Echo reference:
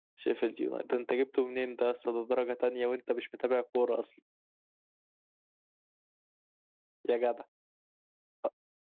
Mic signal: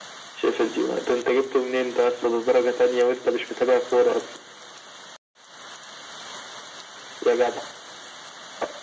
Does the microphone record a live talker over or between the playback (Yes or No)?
No